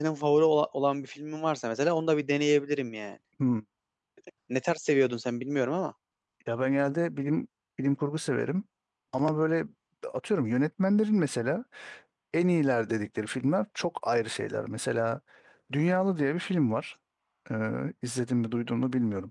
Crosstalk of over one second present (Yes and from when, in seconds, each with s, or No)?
No